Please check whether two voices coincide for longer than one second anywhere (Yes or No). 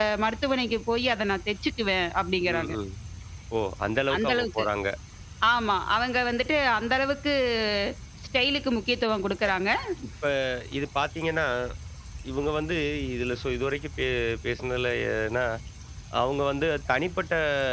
No